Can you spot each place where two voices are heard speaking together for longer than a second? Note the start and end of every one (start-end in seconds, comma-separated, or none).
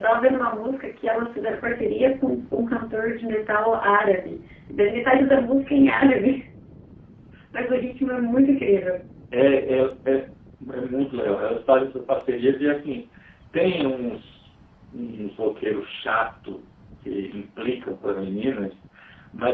none